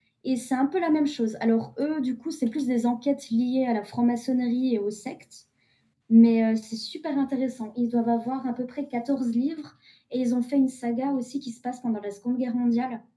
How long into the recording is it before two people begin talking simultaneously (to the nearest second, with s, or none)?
none